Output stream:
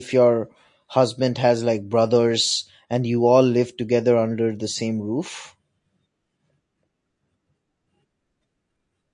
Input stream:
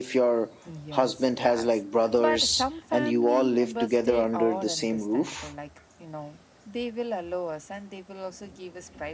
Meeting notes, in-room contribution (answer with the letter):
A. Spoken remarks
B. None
A